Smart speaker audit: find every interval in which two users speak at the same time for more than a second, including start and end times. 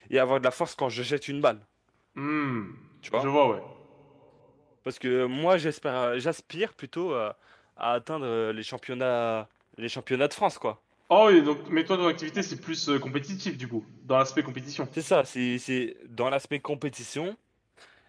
none

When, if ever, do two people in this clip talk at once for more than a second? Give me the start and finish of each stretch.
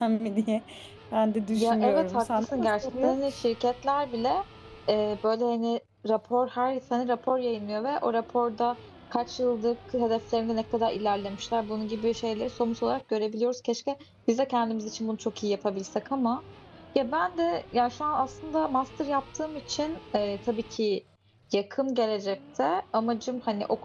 1.6-3.2

